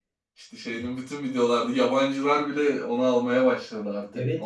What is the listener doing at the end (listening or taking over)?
taking over